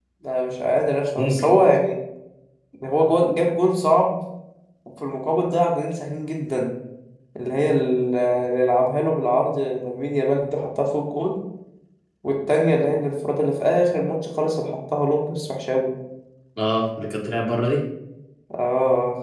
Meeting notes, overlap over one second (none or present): none